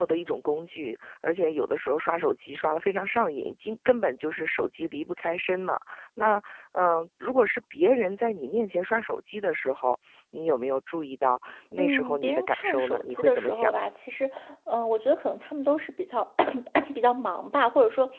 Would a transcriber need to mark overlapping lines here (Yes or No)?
Yes